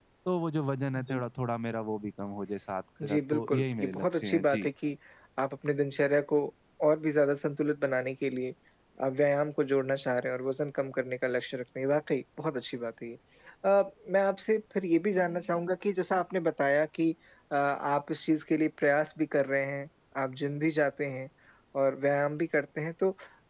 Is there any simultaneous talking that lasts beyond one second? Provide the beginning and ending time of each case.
3.0-4.7

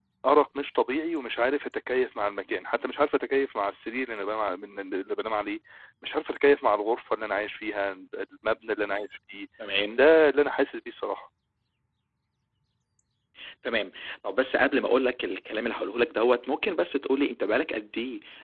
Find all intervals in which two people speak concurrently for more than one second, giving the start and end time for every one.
none

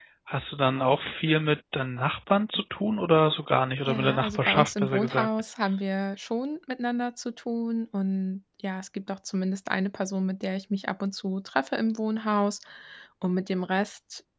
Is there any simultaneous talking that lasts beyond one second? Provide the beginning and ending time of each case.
3.9-5.3

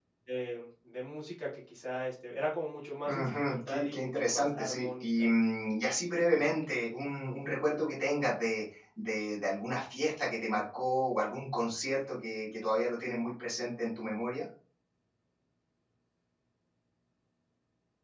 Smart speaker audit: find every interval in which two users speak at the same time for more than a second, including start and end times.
3.0-5.1

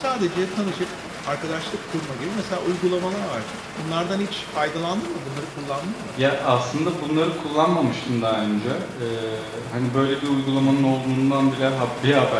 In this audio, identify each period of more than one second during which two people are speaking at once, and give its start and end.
none

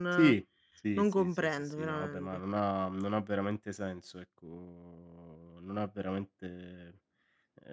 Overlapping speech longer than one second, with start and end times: 1.0-2.4

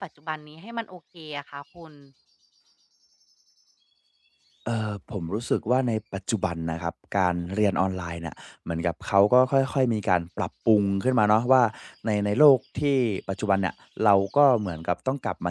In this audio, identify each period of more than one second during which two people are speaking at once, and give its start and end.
none

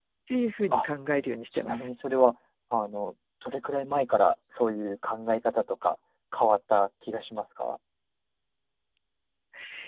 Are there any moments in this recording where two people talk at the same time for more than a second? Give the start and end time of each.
none

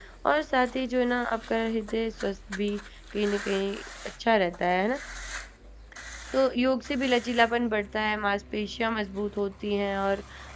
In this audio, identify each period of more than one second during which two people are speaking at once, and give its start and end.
none

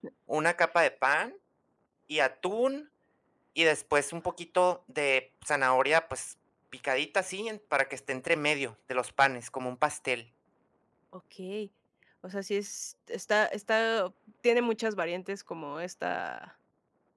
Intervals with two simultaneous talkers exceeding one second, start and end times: none

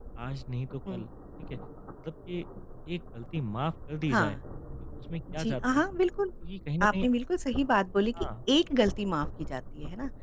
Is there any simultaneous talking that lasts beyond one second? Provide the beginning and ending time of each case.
none

